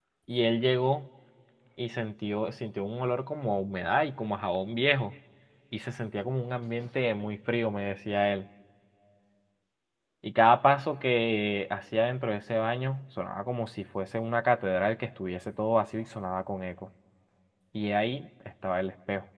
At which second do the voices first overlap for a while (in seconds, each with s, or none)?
none